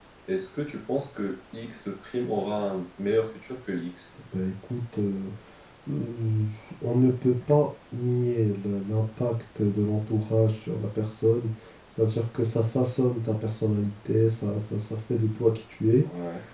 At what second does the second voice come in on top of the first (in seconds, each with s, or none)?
none